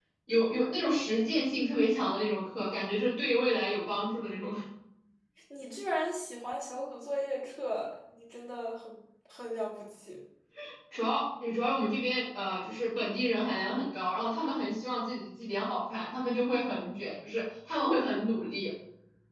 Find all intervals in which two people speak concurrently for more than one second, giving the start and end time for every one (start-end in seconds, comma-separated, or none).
none